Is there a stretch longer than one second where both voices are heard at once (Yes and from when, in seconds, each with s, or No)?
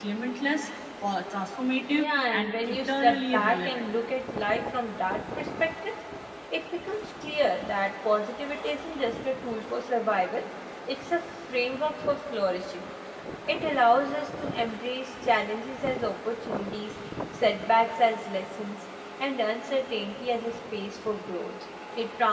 Yes, from 1.9 s